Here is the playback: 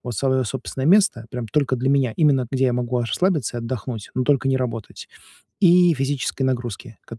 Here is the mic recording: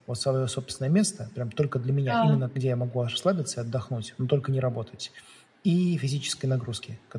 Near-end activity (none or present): present